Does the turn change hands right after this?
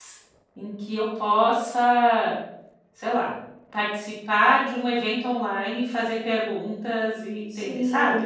Yes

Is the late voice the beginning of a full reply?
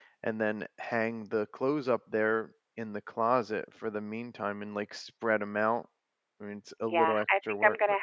Yes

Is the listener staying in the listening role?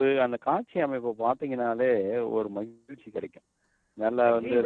Yes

